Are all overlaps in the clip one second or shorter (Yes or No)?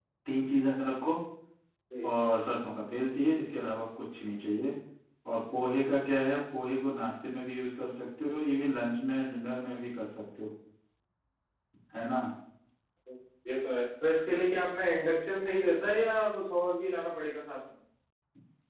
Yes